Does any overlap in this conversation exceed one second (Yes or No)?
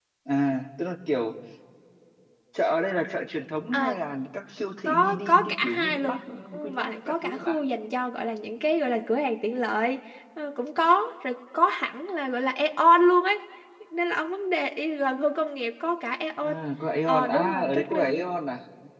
Yes